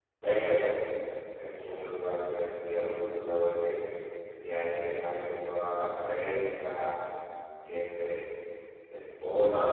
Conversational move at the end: listening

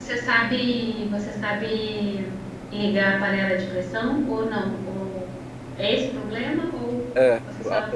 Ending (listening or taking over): taking over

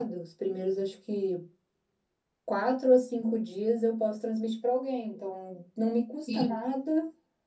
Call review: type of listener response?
listening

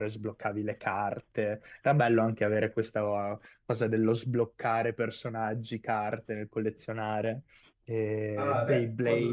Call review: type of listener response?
taking over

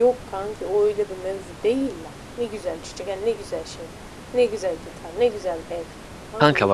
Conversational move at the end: taking over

